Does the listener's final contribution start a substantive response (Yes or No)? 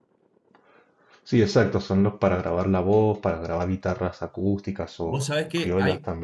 Yes